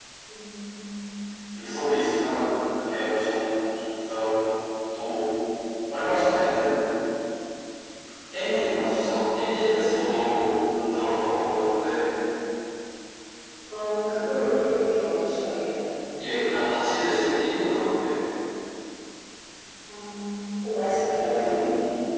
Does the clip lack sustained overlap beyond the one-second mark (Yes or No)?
Yes